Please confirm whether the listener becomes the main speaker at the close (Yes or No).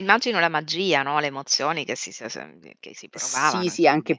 Yes